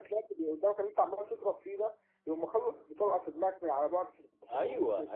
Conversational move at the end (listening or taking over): taking over